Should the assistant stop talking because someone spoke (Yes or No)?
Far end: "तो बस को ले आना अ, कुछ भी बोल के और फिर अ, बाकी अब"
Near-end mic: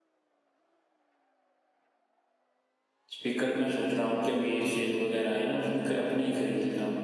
Yes